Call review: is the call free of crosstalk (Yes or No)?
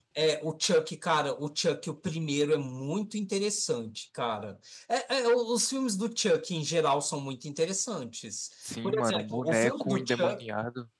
No